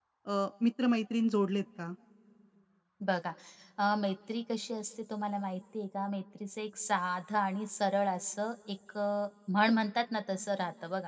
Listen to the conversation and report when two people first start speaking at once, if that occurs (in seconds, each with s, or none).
none